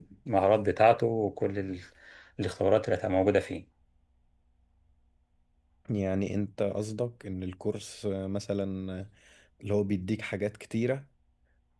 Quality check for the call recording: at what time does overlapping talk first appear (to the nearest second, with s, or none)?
none